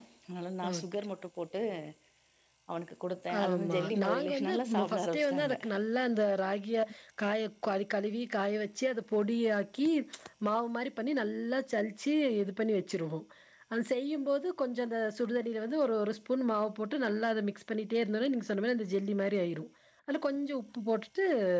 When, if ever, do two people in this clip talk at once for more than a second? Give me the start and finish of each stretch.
3.4-5.5

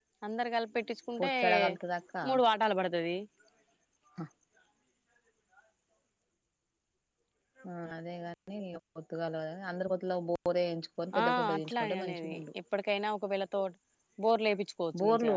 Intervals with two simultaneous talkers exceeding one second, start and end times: 11.2-12.4

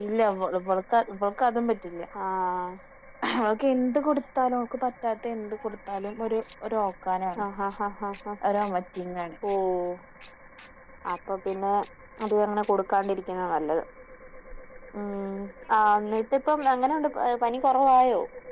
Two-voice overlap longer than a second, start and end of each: none

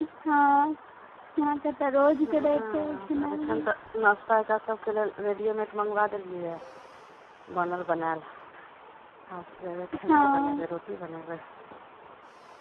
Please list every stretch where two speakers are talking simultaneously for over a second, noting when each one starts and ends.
2.2-3.7

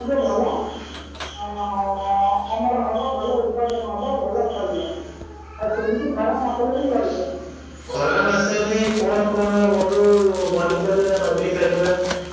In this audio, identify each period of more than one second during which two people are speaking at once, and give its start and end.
none

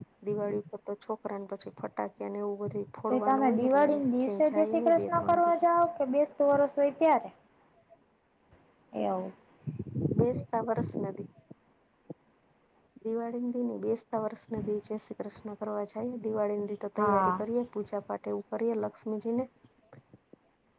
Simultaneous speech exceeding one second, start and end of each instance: 3.1-5.6

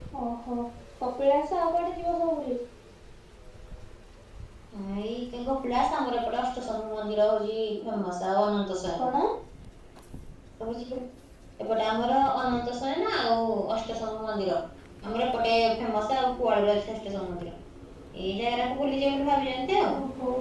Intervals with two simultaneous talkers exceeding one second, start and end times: none

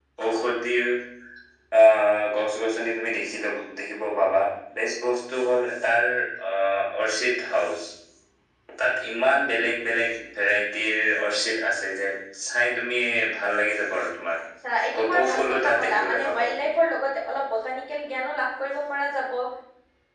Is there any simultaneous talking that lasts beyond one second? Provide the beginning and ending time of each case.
14.9-16.7

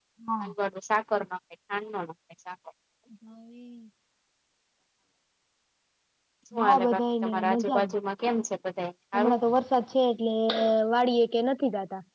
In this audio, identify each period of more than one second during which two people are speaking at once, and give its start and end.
6.6-7.8

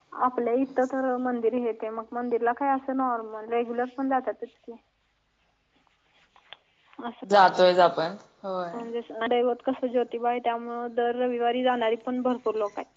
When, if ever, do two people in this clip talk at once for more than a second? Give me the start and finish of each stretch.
none

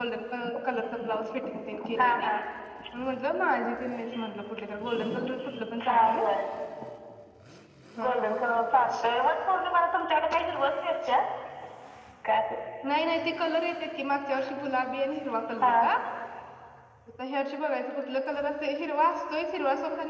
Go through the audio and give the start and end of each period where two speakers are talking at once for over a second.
none

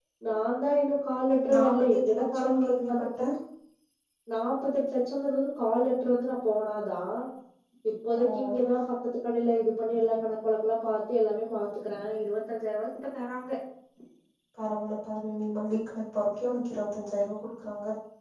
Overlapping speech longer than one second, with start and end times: 1.5-3.2

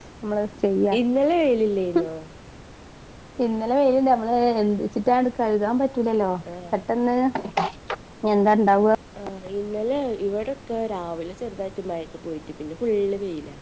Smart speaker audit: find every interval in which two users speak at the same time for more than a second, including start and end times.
none

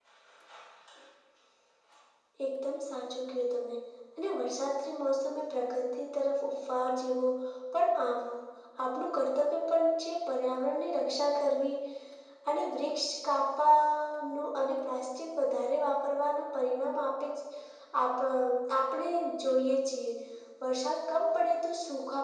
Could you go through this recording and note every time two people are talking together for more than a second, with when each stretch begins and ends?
none

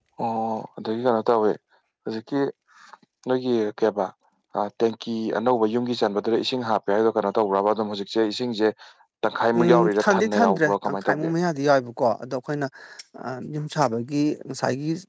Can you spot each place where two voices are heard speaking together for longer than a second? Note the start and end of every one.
9.6-11.3

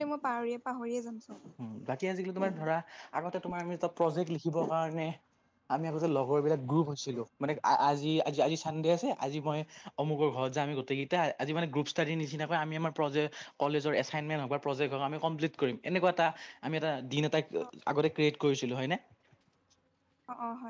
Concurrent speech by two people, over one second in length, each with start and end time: none

